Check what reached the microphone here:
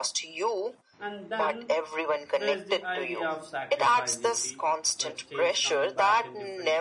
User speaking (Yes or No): Yes